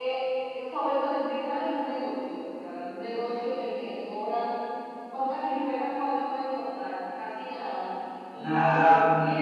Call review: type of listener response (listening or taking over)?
listening